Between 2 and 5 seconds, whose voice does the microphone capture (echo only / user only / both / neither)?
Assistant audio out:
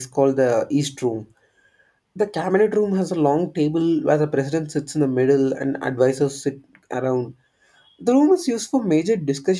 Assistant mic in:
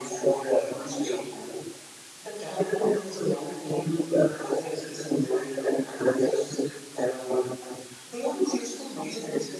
echo only